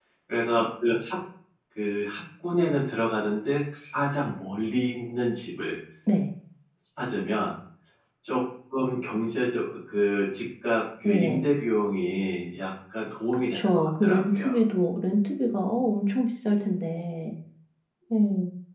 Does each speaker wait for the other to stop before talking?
No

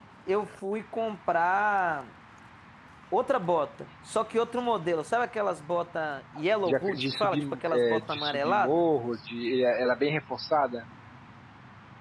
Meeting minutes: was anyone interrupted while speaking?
Yes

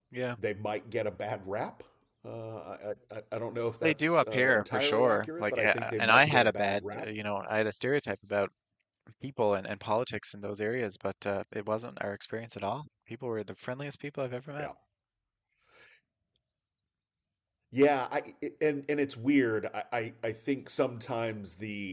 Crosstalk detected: Yes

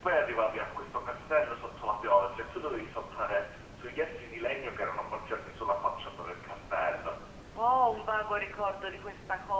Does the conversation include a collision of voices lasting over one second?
No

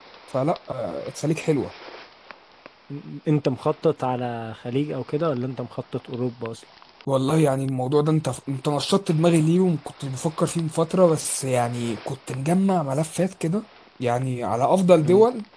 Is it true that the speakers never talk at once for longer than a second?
Yes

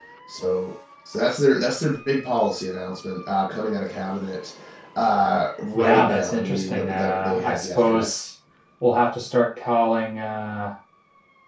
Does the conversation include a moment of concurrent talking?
Yes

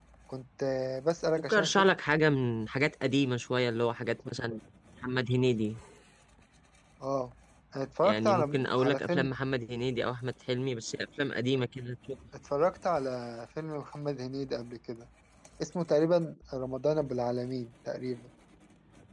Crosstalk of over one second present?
Yes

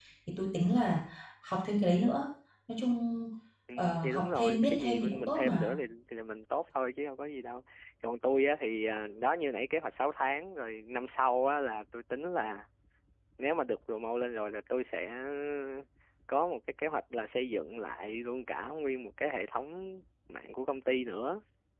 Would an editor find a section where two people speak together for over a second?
Yes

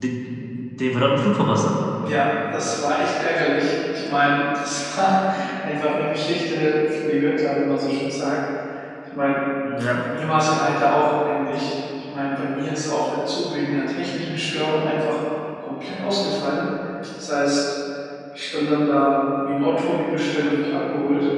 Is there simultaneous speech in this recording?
No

